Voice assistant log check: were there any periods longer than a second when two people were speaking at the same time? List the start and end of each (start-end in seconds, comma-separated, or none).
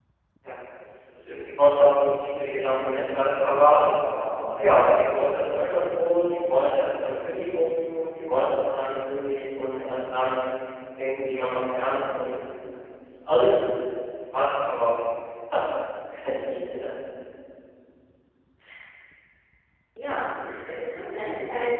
none